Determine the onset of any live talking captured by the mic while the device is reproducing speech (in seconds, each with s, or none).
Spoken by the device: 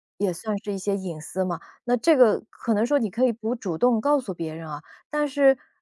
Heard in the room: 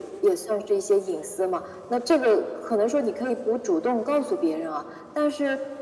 none